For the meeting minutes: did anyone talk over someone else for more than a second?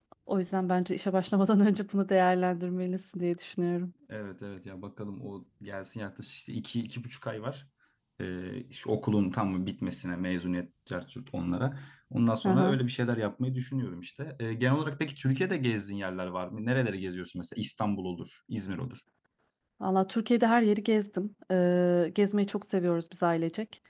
No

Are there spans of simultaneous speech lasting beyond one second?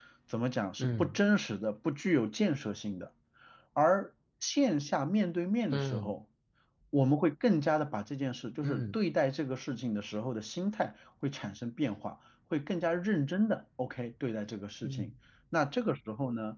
No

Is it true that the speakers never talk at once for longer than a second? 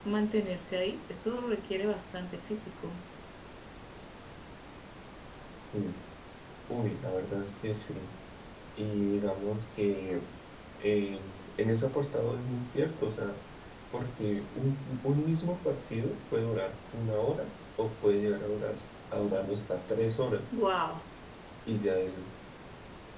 Yes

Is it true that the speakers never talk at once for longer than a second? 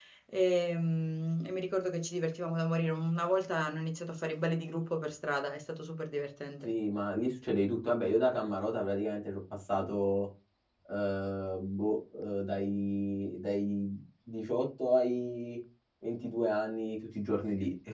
Yes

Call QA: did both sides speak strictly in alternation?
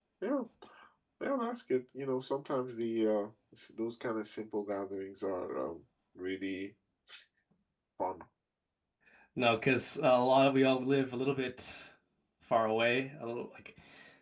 Yes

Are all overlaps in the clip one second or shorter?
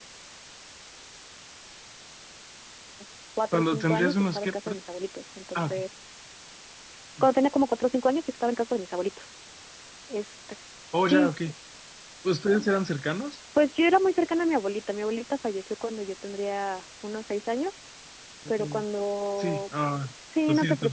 No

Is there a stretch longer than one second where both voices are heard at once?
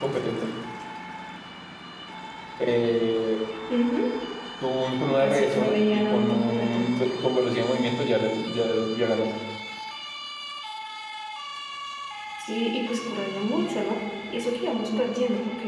Yes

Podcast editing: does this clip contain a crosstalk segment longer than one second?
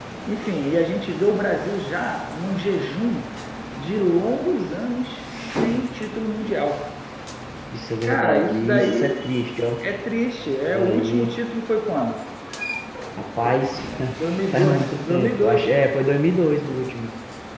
Yes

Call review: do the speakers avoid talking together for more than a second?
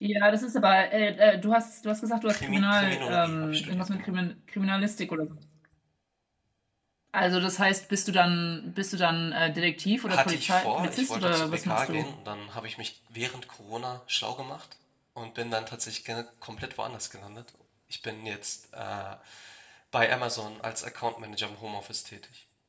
No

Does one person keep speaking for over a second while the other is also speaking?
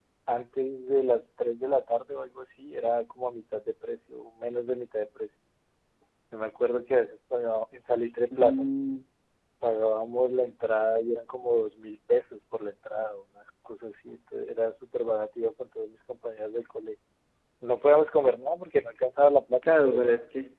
No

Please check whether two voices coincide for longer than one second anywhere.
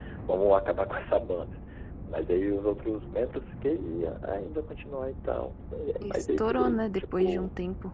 Yes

